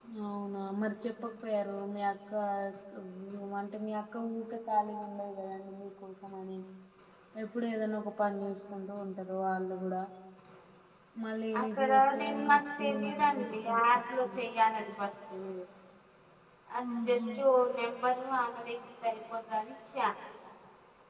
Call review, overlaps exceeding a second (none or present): present